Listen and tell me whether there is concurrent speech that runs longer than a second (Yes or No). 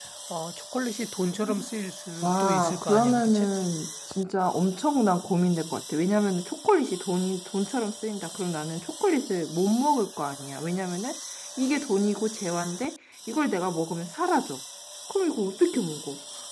Yes